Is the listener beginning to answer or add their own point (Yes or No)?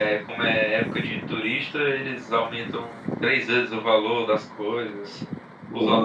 No